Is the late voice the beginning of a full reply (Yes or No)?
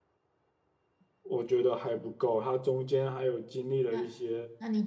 Yes